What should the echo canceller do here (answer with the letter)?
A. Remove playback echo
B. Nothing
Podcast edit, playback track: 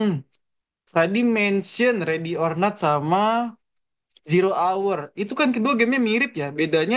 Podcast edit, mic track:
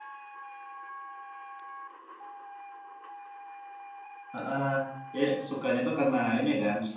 B